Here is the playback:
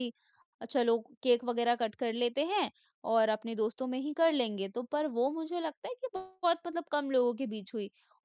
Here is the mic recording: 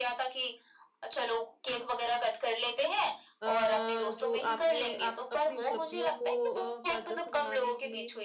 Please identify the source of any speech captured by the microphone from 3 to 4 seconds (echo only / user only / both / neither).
both